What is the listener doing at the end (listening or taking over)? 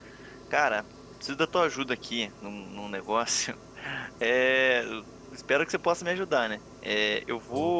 listening